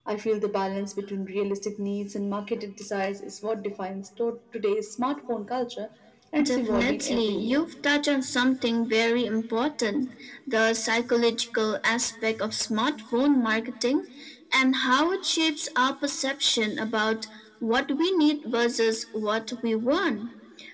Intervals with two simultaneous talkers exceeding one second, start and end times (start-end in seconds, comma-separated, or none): 6.4-7.6